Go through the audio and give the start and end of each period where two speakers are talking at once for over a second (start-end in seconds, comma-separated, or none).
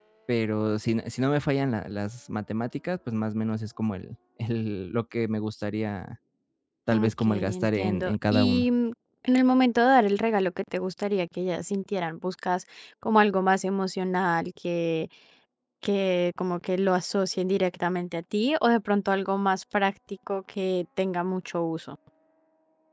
6.9-8.7